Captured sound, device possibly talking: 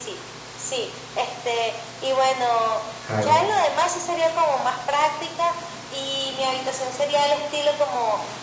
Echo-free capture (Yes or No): No